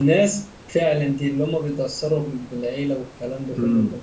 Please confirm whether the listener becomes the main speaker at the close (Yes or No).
No